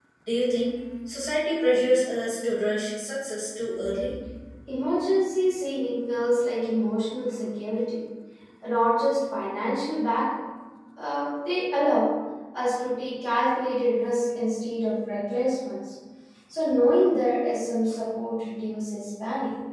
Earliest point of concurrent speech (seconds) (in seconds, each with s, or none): none